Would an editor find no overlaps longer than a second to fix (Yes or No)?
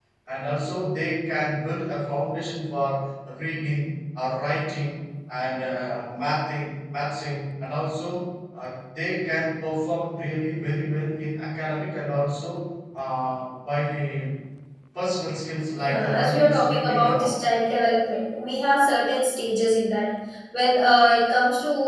No